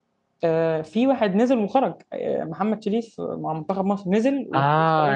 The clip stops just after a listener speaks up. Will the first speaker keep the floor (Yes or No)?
No